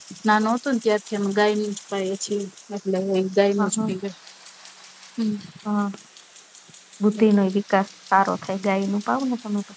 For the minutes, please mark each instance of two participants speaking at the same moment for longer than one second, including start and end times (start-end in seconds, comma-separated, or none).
none